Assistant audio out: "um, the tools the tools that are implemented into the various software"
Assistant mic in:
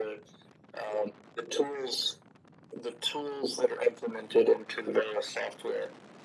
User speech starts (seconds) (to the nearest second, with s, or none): none